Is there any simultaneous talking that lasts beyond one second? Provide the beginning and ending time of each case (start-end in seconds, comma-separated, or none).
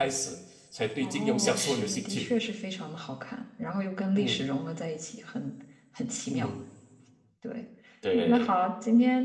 1.0-2.3